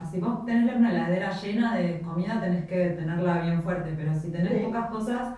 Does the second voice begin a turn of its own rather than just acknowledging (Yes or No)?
No